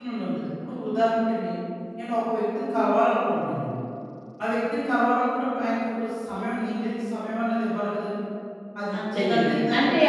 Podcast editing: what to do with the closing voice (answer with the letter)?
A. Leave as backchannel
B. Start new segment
B